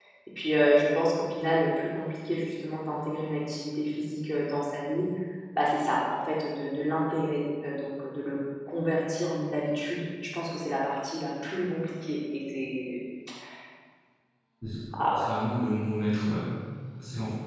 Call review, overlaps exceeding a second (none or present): none